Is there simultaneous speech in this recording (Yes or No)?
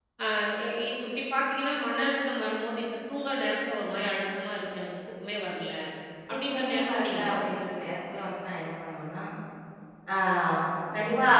Yes